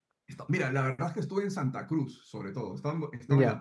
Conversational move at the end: listening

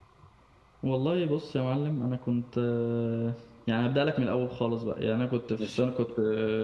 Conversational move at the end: listening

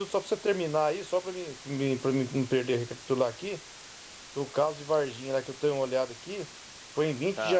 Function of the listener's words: listening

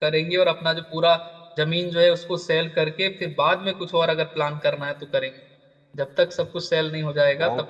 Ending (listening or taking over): taking over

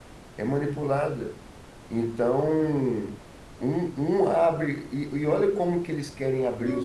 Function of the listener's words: taking over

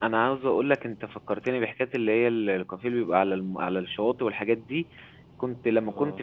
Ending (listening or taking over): listening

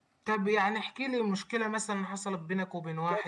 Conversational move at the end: taking over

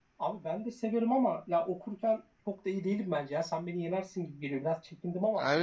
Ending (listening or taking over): taking over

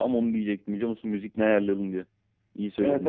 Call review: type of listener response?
taking over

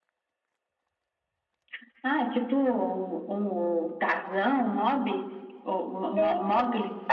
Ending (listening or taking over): taking over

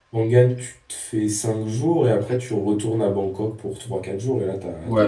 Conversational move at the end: taking over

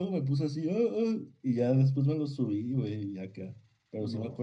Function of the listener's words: listening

